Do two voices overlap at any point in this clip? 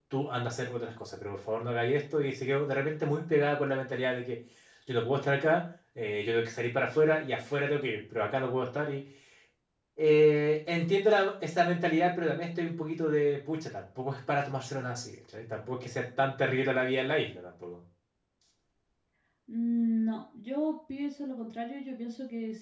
No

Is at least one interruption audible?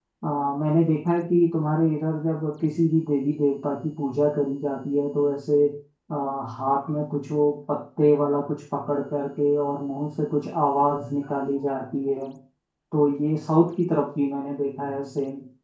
No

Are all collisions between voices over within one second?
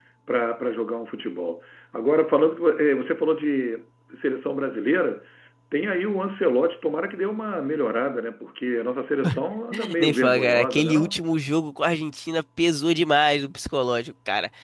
No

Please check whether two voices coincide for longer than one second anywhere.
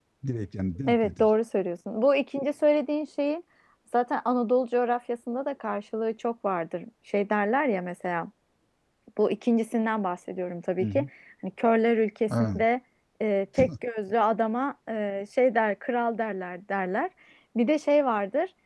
No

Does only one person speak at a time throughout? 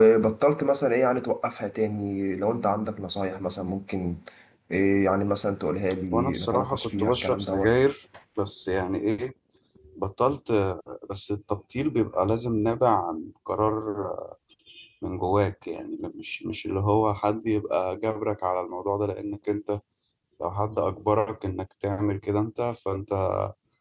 No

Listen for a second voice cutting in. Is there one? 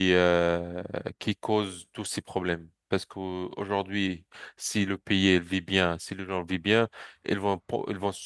No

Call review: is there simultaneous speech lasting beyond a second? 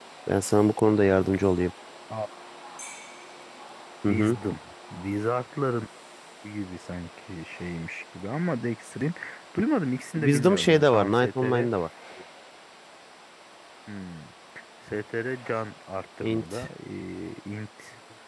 Yes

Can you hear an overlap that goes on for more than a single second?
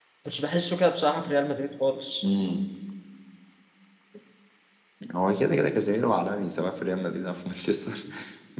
No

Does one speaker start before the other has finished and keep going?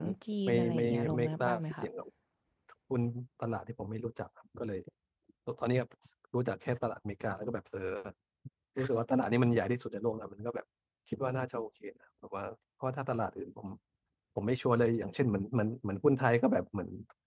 Yes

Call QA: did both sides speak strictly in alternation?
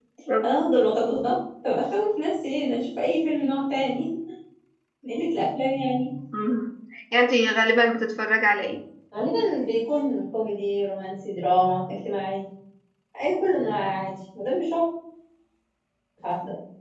Yes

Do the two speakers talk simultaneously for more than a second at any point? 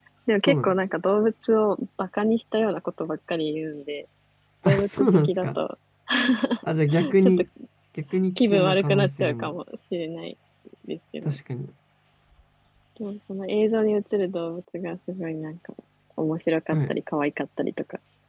Yes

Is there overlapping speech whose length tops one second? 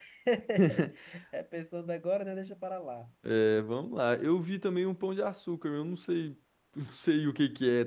No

